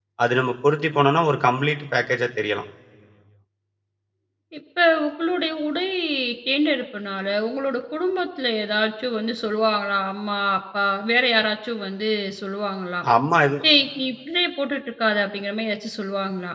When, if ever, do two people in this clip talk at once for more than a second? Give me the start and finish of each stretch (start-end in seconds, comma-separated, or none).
none